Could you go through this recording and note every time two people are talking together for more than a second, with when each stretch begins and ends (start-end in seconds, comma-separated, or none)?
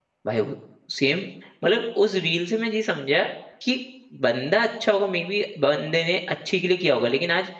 none